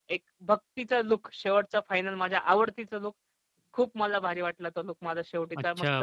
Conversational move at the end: taking over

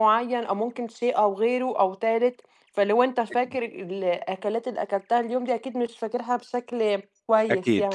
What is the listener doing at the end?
taking over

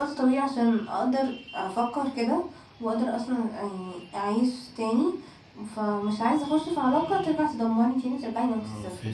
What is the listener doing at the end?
taking over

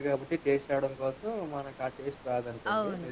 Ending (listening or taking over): taking over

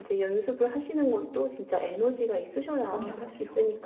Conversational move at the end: taking over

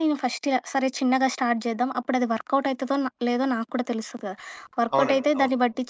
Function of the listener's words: listening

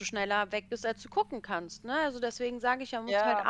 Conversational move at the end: listening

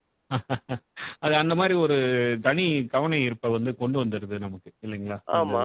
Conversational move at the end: taking over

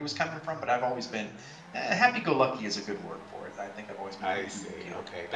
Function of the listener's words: taking over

